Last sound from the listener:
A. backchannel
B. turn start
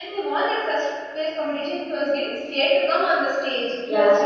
B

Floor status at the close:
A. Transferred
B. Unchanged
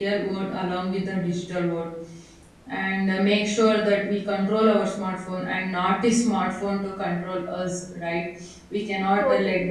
B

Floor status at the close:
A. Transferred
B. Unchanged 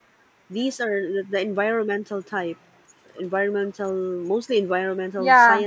A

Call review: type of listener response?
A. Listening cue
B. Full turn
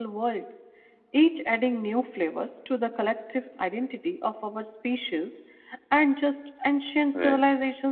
A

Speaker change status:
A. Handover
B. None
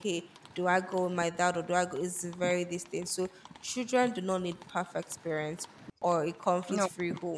B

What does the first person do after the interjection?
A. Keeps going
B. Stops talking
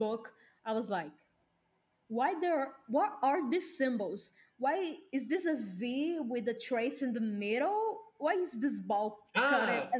B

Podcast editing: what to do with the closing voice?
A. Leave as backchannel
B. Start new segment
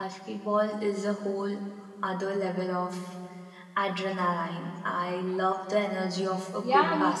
B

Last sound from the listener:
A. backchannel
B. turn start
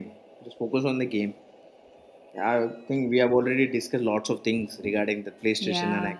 B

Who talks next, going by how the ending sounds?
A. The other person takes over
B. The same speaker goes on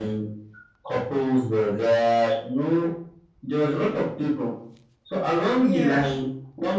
B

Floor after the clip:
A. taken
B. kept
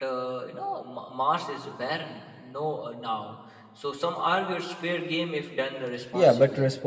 A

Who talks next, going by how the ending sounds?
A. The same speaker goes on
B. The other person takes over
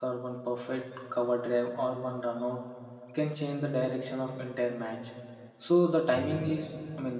A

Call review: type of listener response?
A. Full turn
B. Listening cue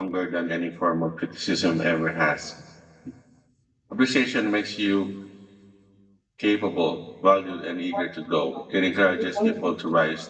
B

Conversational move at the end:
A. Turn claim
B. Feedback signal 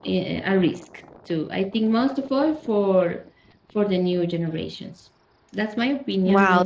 A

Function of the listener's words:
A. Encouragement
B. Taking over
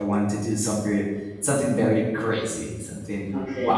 A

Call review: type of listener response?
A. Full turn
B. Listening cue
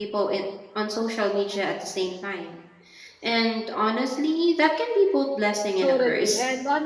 A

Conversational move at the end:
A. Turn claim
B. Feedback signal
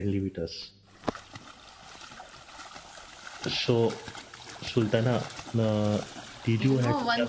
A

